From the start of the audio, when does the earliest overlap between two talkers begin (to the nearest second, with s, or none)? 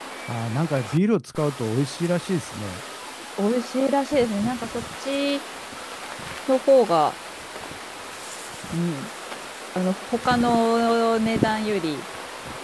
none